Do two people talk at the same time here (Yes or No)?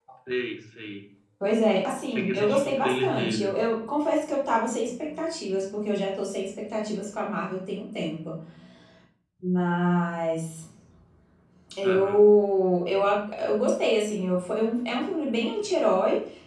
Yes